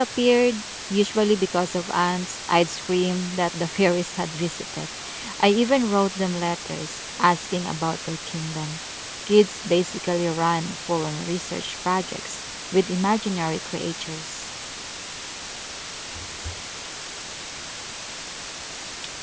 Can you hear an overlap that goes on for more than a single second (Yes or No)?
No